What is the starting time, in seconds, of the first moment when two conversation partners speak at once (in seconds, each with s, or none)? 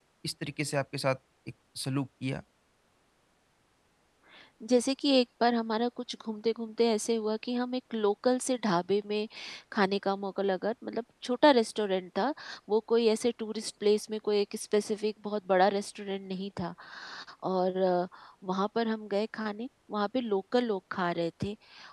none